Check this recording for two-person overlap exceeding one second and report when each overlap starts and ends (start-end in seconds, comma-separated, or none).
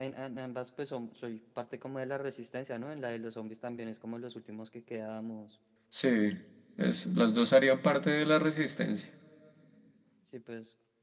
none